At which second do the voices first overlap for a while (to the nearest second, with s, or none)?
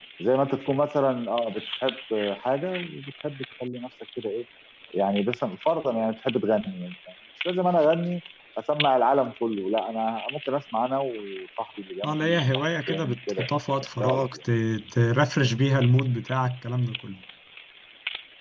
12 s